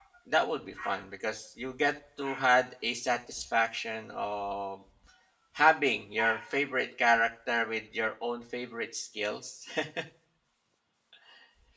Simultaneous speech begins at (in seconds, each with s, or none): none